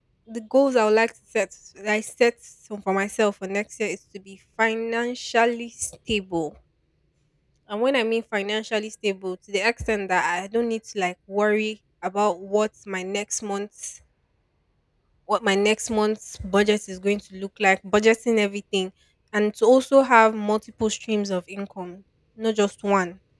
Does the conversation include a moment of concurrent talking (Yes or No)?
No